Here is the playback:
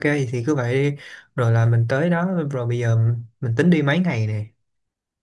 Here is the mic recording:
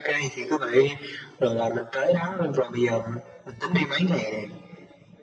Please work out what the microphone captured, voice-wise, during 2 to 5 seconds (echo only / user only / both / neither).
echo only